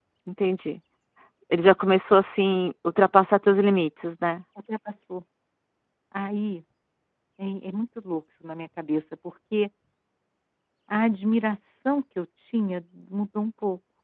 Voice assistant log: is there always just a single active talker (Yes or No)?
Yes